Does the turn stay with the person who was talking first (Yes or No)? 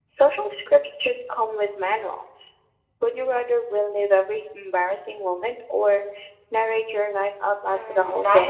No